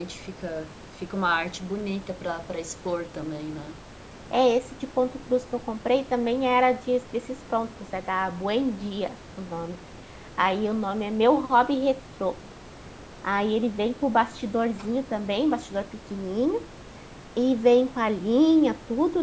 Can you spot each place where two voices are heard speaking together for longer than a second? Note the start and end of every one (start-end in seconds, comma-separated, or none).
none